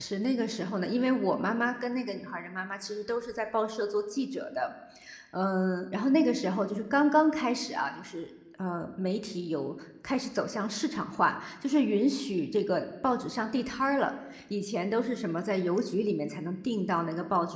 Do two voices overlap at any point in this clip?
No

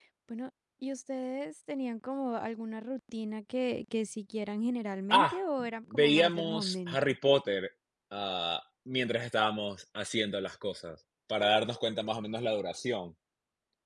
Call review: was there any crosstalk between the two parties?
Yes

